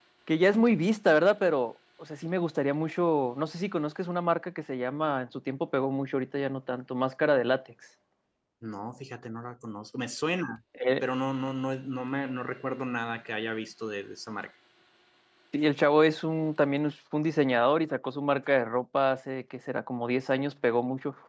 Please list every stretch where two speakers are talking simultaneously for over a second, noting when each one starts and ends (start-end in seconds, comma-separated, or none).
none